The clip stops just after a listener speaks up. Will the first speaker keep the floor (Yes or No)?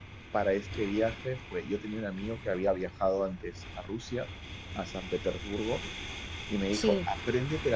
Yes